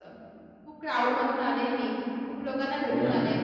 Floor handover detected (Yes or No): No